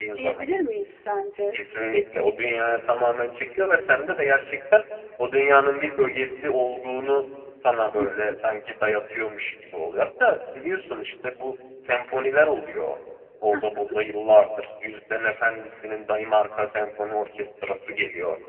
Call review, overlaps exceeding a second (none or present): none